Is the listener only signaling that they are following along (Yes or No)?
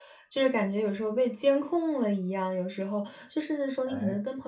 Yes